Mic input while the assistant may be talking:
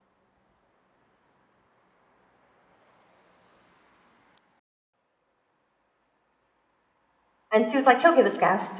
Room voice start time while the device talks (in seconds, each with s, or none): 7.5 s